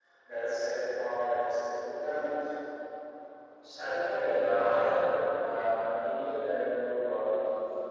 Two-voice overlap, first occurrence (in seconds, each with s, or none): none